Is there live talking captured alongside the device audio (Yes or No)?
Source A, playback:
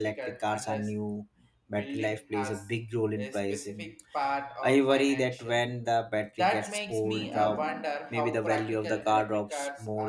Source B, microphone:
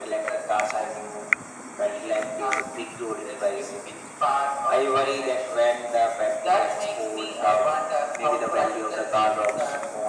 No